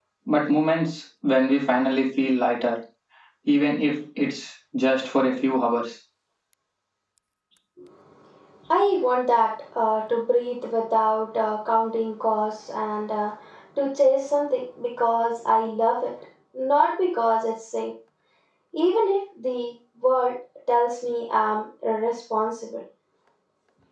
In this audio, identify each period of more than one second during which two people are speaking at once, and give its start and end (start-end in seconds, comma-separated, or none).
none